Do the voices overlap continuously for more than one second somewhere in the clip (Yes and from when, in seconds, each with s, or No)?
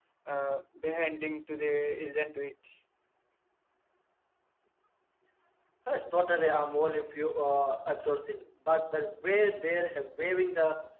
No